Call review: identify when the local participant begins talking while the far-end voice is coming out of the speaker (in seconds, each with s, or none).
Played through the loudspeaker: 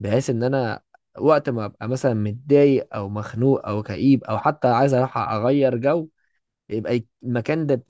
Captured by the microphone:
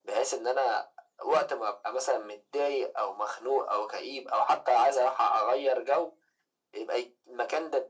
none